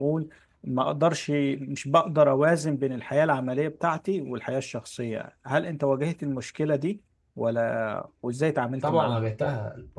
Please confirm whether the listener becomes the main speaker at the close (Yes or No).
Yes